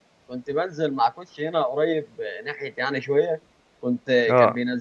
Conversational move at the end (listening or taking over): listening